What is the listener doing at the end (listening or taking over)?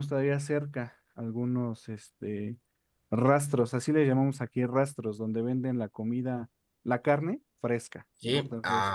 taking over